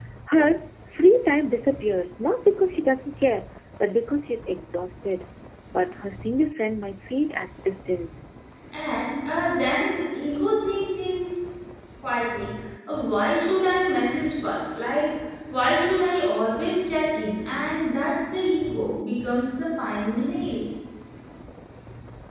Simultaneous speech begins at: none

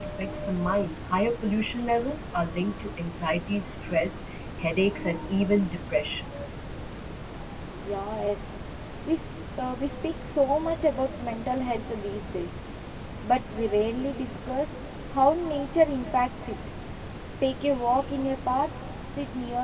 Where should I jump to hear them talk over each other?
none

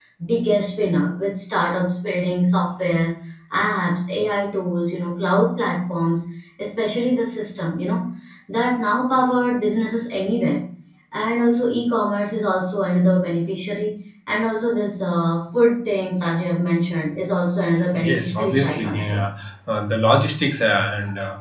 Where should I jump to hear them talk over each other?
17.8 s

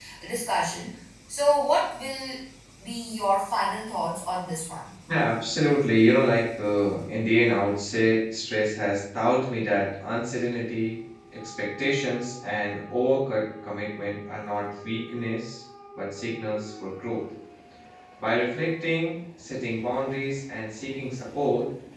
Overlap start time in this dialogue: none

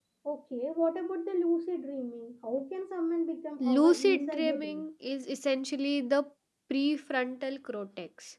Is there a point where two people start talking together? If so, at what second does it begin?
3.6 s

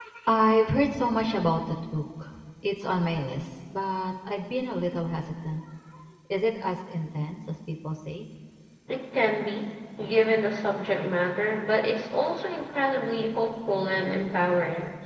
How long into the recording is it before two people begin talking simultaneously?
none

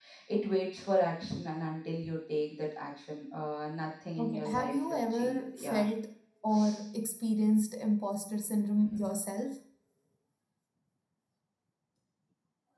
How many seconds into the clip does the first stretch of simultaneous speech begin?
4.2 s

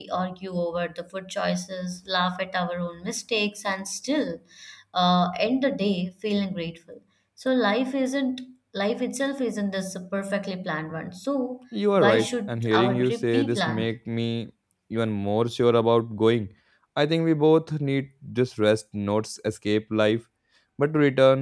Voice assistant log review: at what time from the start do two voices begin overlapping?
12.0 s

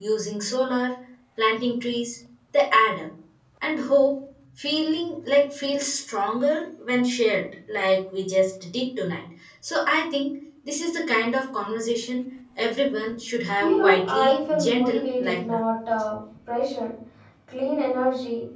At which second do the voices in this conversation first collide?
13.6 s

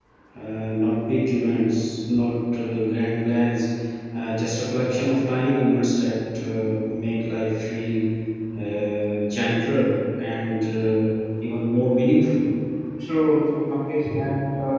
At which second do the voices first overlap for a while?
none

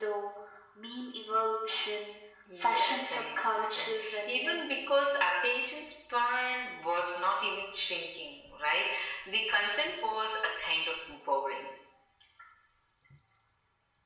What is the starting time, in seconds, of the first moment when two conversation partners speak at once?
2.4 s

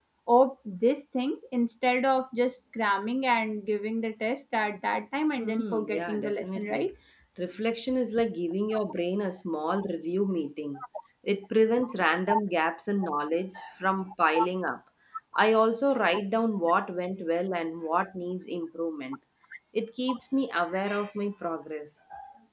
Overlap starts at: 5.4 s

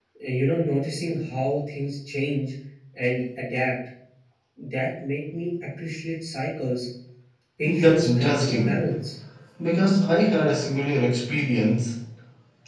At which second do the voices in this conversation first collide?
7.6 s

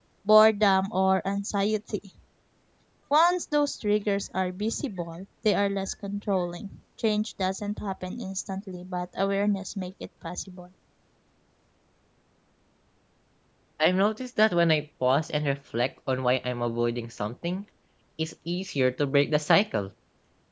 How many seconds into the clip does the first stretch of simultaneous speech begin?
none

